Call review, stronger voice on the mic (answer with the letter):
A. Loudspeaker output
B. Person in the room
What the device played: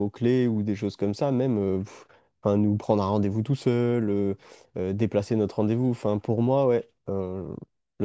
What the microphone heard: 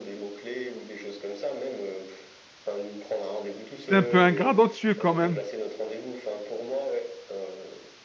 B